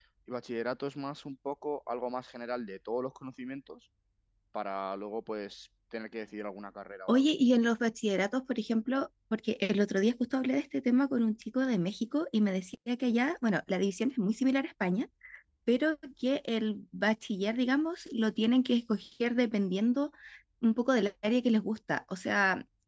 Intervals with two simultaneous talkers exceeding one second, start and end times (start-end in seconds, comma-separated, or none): none